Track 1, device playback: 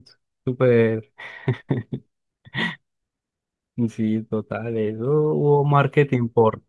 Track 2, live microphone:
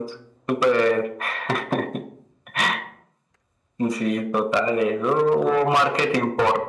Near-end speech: none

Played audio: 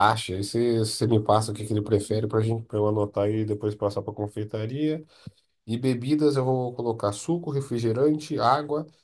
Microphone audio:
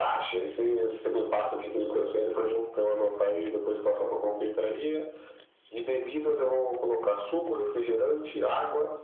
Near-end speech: none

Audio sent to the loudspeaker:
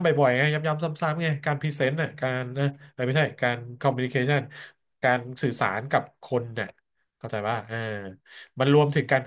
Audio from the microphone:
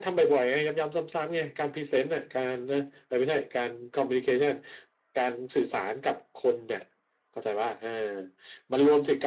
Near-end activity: none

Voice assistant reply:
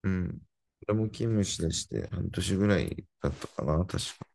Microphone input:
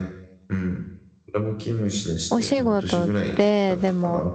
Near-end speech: present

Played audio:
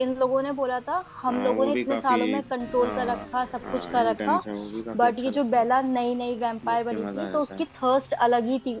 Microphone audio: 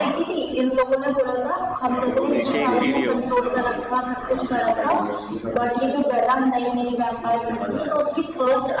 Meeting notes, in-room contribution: present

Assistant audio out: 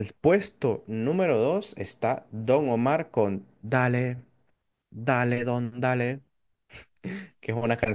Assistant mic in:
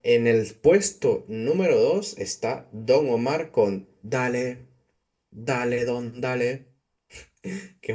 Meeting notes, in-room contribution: none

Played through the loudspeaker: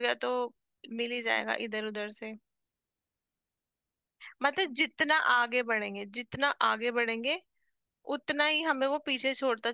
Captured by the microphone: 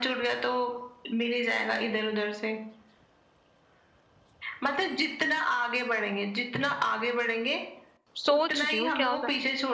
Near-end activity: present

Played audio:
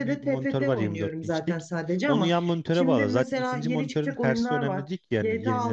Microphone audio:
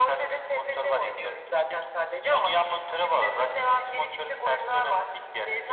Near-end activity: none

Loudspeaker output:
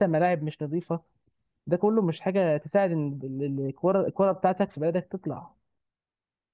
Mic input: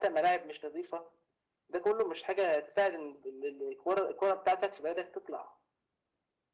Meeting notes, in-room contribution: none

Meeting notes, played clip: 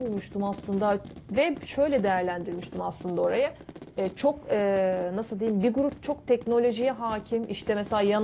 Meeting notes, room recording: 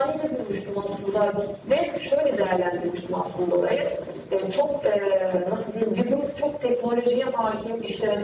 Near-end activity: none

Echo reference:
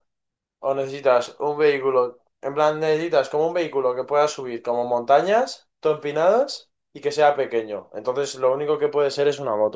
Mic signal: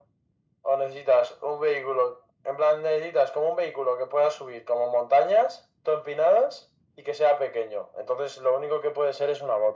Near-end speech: none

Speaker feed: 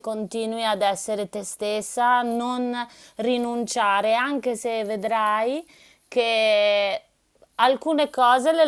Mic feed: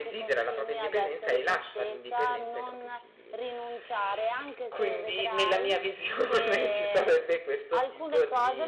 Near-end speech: present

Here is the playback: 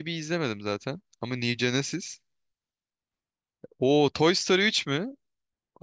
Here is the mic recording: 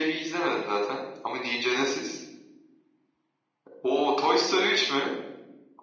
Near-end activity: none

